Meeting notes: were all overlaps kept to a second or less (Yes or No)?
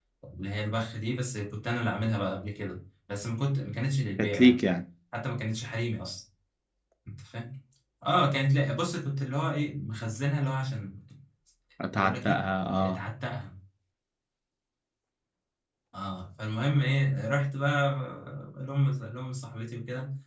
Yes